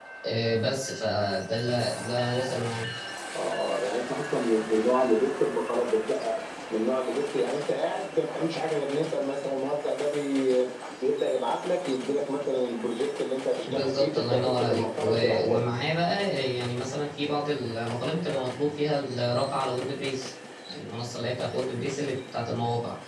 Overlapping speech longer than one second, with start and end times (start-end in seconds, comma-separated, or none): 13.7-15.7